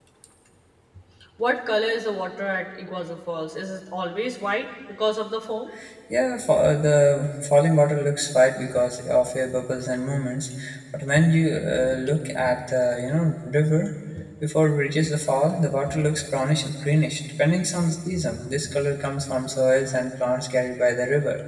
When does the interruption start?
none

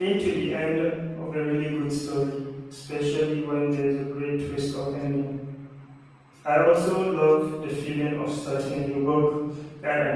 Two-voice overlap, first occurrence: none

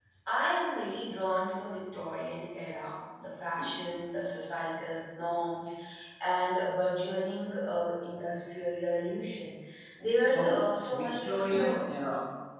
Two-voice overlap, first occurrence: 10.3 s

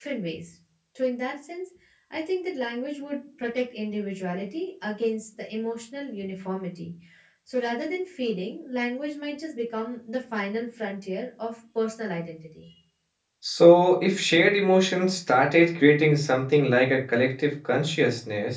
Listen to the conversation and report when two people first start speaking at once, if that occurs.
none

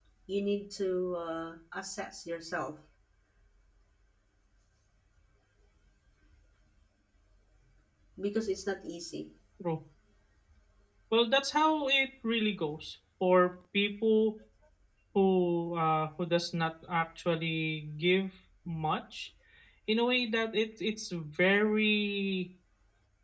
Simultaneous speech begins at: none

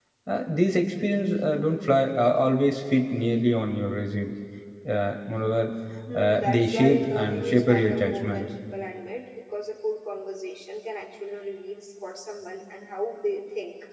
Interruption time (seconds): 6.1 s

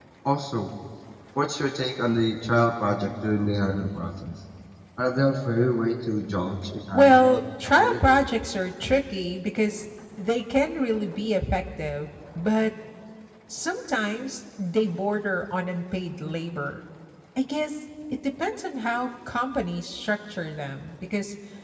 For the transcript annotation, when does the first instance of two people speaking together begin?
6.9 s

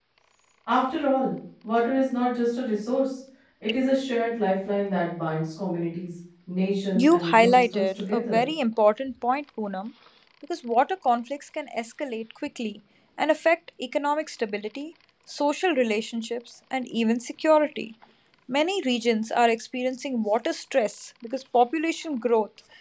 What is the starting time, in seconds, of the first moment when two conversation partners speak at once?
6.9 s

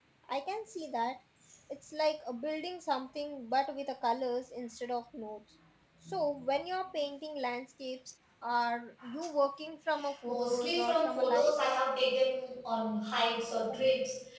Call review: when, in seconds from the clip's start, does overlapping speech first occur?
10.2 s

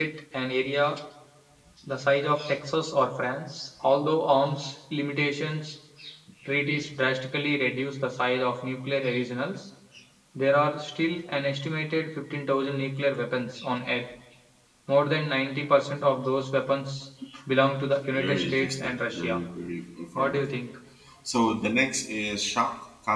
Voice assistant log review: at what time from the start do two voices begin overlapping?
18.1 s

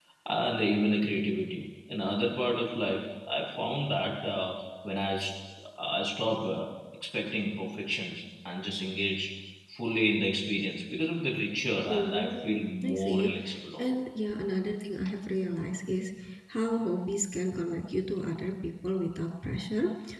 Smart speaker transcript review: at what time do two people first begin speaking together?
11.9 s

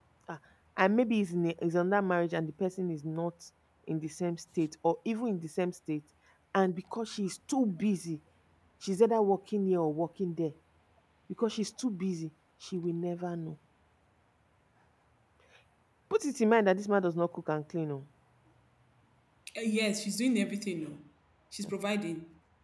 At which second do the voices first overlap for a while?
none

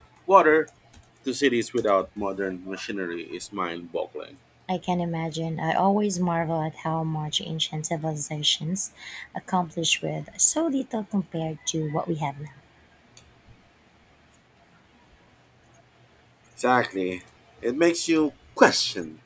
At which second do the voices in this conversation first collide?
none

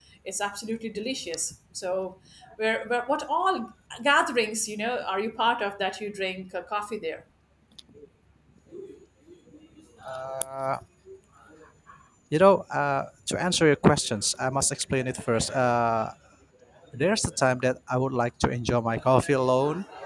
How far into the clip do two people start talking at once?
none

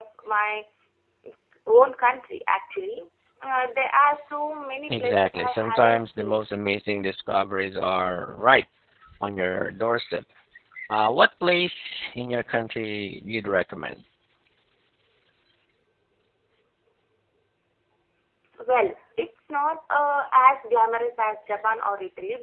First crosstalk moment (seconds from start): 4.9 s

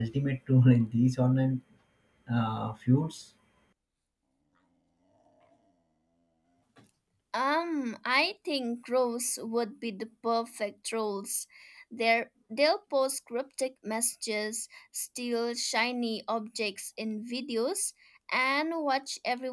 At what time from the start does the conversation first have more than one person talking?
none

